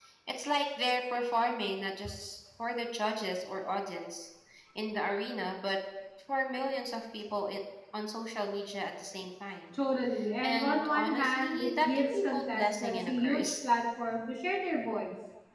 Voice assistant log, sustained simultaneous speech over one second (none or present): present